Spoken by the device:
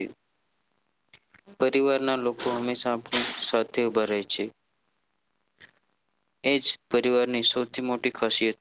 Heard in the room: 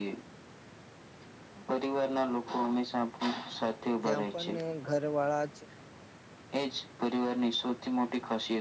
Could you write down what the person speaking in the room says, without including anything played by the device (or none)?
ત્યાં પણ ઘર વાળા